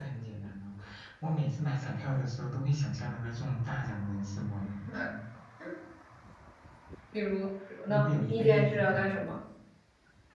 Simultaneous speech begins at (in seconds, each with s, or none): 7.9 s